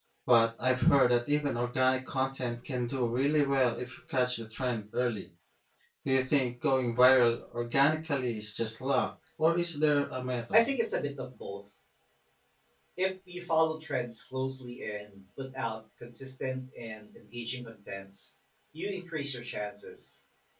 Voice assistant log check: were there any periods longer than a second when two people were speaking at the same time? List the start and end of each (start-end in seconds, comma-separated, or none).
none